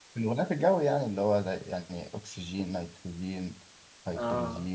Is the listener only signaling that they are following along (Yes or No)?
No